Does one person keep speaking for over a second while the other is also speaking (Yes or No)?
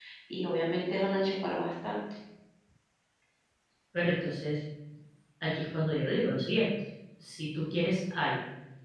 No